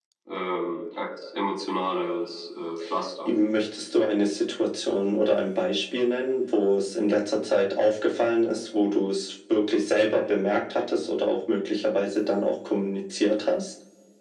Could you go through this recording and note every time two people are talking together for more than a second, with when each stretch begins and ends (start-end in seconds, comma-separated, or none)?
none